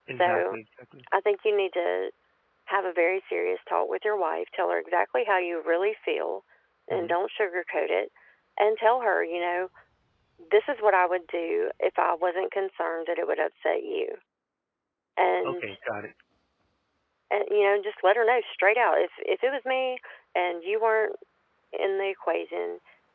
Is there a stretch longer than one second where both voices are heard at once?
No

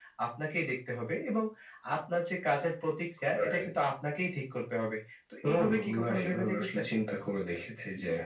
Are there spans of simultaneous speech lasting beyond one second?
Yes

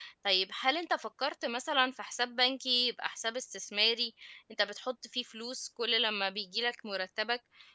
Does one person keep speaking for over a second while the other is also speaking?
No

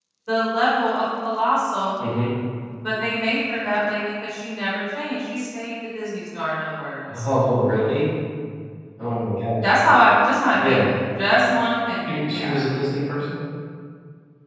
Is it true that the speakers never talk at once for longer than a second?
Yes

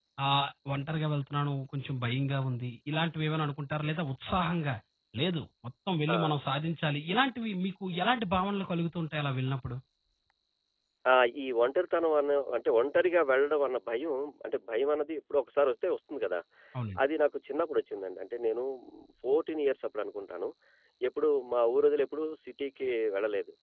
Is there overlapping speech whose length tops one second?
No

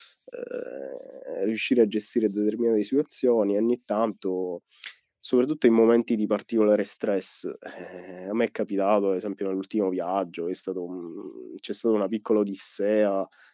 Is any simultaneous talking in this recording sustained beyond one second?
No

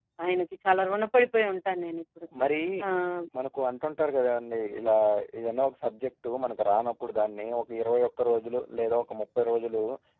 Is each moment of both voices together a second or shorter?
Yes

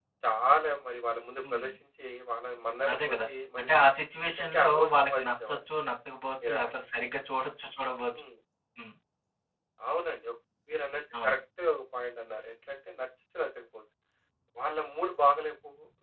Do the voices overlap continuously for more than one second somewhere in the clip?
Yes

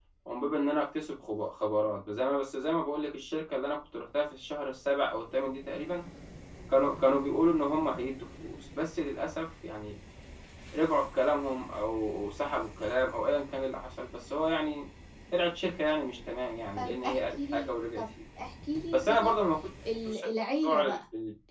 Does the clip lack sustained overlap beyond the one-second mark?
No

